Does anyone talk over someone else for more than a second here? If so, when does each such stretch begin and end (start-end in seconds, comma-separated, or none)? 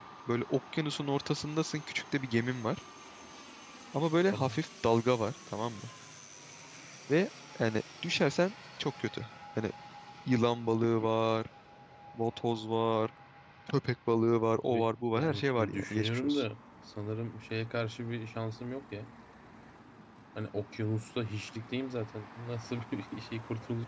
14.7-16.4